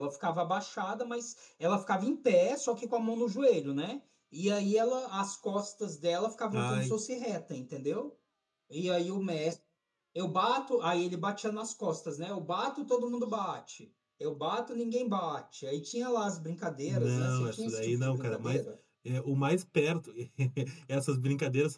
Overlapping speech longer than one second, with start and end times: 16.9-18.6

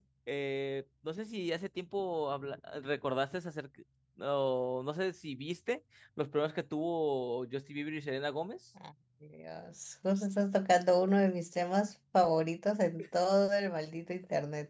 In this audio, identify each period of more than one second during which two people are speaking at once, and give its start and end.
none

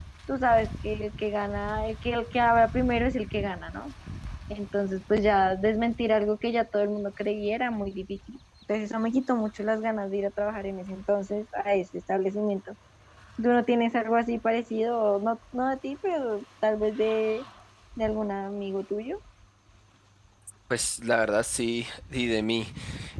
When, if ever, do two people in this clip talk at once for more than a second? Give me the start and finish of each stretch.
none

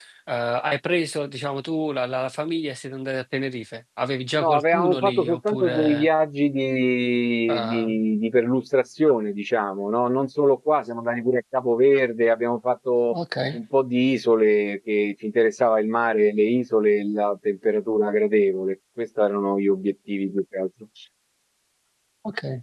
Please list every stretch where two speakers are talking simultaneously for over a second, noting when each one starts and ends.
4.4-6.1

